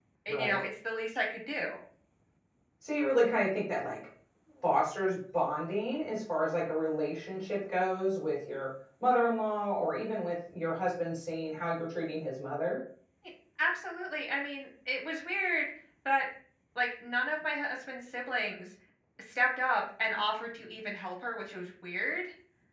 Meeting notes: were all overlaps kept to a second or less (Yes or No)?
Yes